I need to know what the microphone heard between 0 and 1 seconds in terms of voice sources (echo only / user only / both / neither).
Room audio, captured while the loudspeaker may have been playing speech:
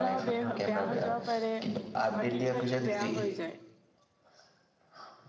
both